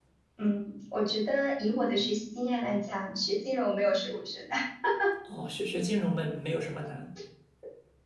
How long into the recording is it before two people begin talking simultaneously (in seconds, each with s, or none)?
none